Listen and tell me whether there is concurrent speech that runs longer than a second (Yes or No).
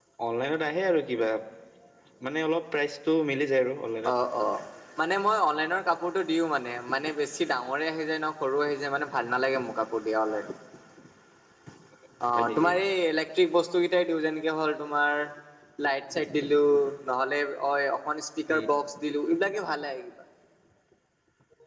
No